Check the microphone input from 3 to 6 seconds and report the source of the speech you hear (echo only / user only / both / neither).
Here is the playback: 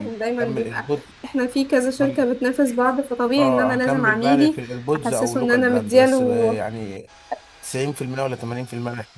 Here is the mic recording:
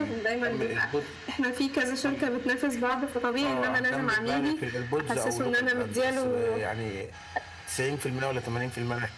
echo only